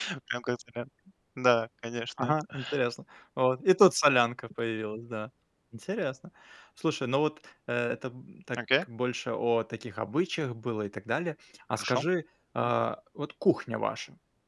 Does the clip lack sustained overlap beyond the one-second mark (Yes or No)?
Yes